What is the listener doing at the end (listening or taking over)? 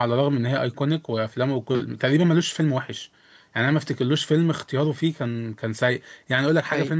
listening